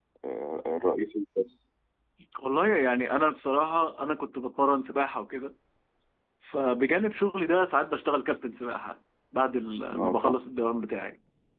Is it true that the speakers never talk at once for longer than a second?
Yes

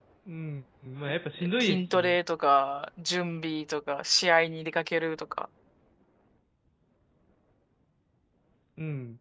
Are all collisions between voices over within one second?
Yes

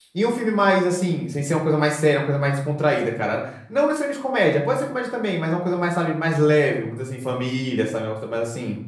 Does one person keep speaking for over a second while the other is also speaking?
No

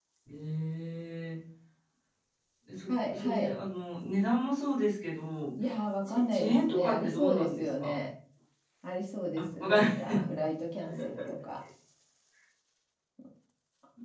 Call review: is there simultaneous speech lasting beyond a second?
Yes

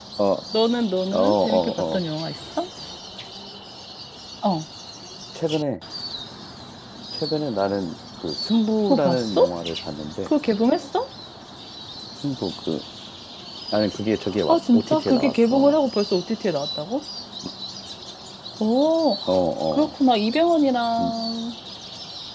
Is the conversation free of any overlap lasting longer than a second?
No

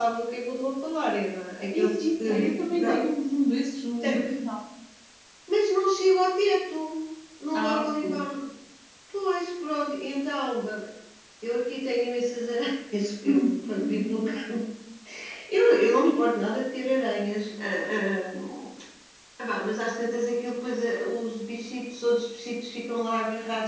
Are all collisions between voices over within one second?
No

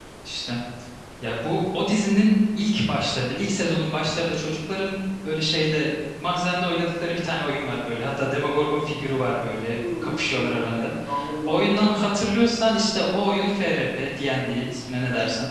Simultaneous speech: Yes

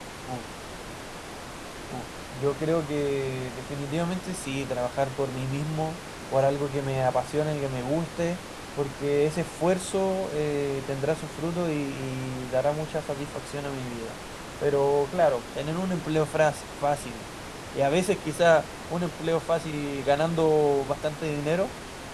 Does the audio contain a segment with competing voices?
No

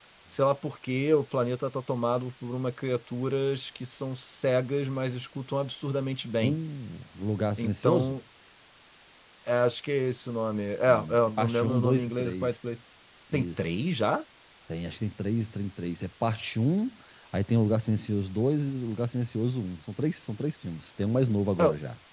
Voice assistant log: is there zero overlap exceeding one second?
No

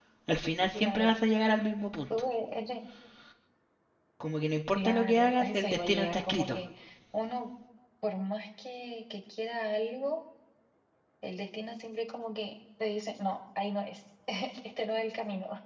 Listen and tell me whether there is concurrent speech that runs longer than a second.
Yes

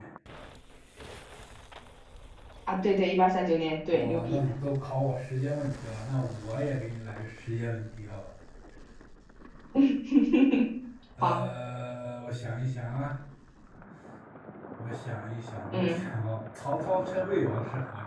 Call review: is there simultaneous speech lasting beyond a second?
No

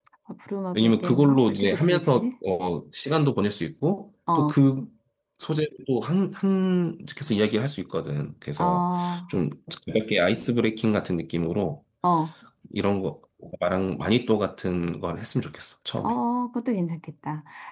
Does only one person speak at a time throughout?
No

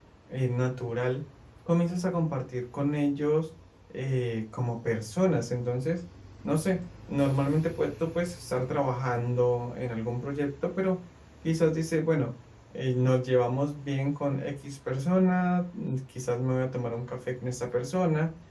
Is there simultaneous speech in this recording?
No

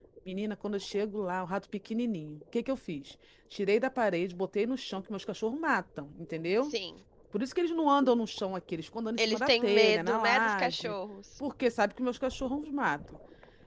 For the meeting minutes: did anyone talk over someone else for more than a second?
Yes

